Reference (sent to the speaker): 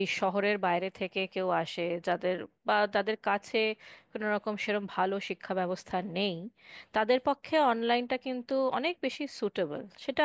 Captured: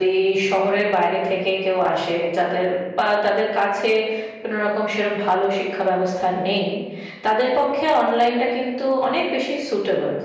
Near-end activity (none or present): none